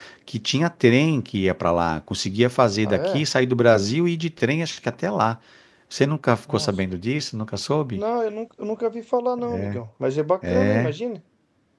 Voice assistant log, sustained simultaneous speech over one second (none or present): none